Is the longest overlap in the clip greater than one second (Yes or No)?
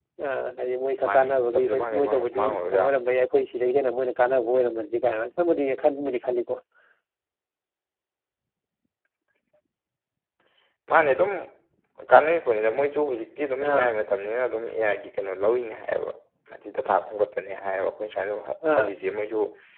Yes